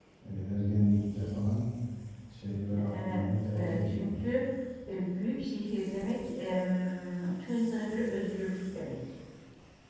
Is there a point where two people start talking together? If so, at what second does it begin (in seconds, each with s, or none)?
2.9 s